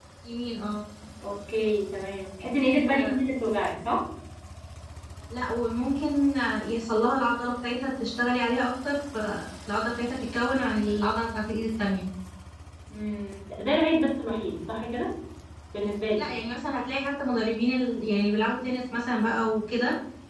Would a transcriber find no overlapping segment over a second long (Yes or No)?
Yes